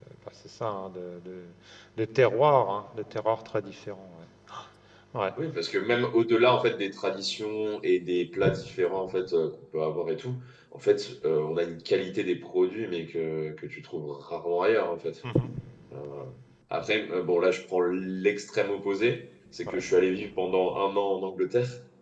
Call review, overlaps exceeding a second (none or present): none